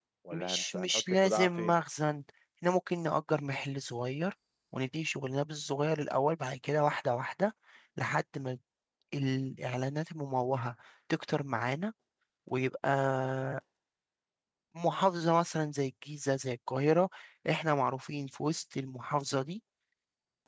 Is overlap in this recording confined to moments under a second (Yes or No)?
No